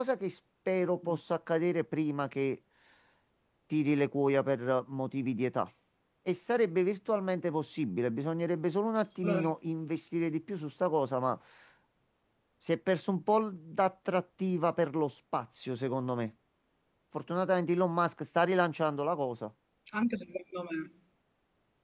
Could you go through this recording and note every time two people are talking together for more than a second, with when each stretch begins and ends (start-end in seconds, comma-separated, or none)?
none